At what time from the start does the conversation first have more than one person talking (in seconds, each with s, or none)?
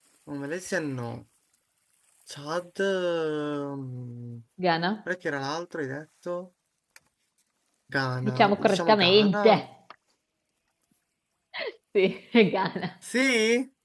8.2 s